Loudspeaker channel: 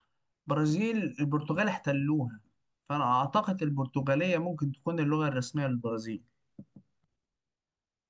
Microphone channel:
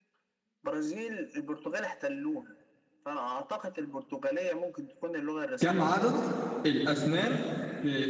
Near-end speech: present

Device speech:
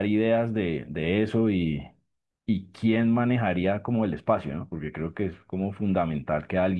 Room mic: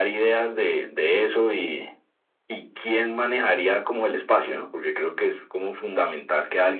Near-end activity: none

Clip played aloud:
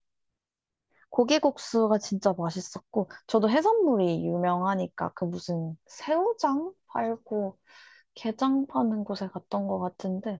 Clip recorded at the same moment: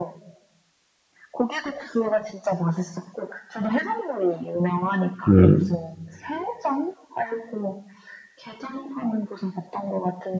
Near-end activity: present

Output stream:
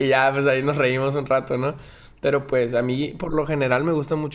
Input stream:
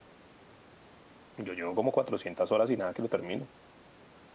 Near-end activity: present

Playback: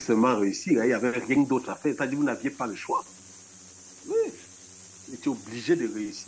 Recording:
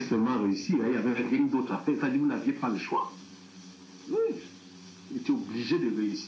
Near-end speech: none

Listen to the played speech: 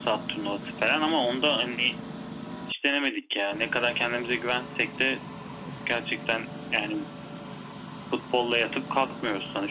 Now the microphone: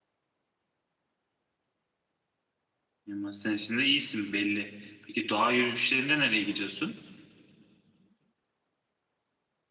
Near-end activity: present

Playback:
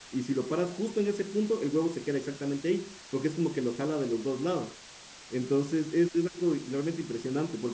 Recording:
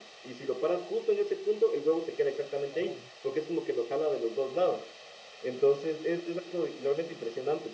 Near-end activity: present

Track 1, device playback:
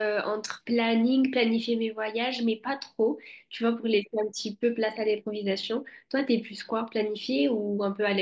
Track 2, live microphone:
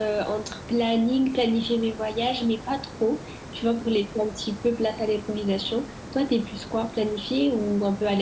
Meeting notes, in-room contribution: none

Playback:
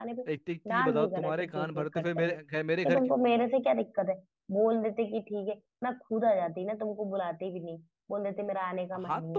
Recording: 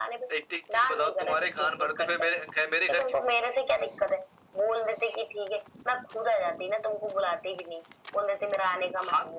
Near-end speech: none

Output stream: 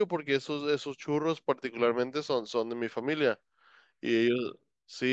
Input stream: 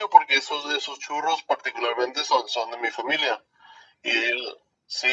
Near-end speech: none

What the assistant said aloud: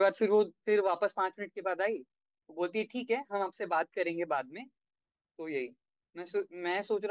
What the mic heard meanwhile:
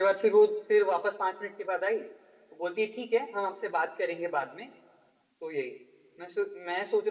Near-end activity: none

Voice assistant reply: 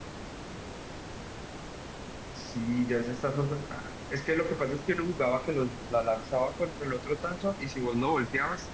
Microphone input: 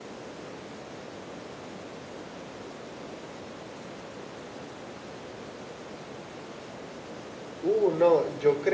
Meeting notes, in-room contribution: present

